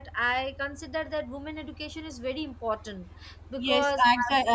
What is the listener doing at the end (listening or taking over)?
taking over